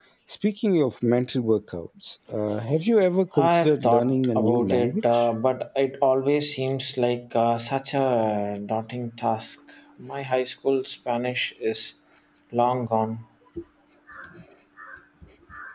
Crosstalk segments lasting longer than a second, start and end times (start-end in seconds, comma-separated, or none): 3.4-5.0